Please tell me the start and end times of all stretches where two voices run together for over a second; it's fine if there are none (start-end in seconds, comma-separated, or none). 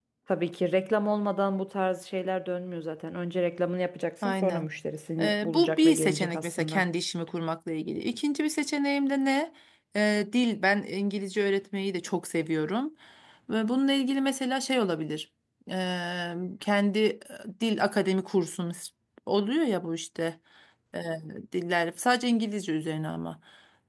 5.2-6.8